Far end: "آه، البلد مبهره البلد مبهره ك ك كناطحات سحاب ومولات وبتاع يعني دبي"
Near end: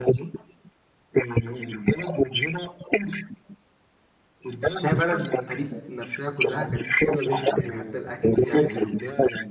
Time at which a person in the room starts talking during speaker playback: 4.7 s

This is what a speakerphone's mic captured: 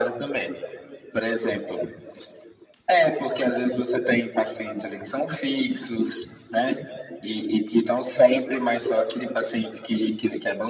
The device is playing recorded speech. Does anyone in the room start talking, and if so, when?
none

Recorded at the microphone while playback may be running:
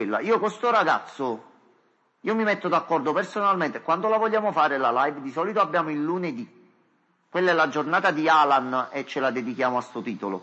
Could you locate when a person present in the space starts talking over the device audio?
none

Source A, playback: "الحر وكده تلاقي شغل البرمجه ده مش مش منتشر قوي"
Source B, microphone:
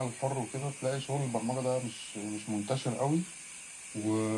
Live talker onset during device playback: none

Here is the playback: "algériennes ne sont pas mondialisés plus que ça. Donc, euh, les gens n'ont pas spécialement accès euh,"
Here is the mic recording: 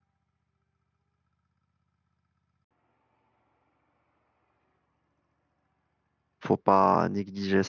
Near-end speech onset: 6.4 s

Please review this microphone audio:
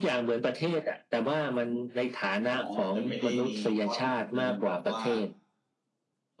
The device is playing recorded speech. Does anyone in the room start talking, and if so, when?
2.5 s

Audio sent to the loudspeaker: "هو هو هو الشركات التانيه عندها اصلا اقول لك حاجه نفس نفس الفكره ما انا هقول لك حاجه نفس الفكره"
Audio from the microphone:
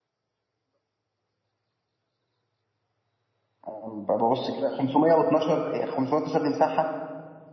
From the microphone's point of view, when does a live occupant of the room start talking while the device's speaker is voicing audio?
3.7 s

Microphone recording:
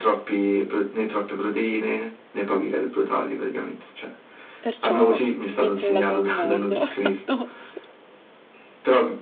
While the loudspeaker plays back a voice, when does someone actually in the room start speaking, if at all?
4.6 s

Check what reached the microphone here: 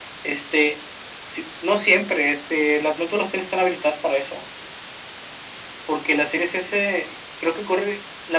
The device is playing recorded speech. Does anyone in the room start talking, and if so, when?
none

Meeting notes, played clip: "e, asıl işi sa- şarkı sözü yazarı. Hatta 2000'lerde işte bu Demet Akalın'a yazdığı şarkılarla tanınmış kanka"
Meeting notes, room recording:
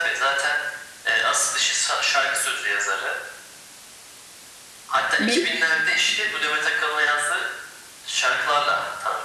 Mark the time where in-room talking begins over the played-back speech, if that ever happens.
5.2 s

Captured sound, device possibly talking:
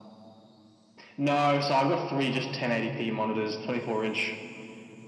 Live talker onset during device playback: none

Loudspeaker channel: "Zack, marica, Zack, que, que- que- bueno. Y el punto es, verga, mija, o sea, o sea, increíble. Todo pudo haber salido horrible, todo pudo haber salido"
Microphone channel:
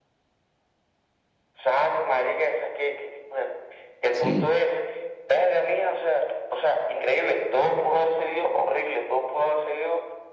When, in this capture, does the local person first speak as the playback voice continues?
4.1 s

